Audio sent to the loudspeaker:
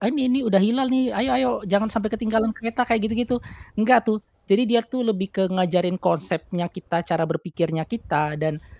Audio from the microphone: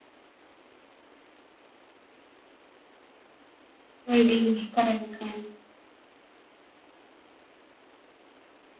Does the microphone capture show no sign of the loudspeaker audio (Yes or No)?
Yes